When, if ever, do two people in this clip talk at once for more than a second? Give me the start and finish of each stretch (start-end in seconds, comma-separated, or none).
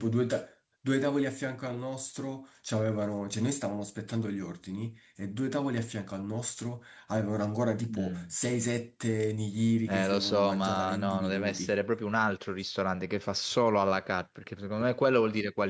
9.9-11.8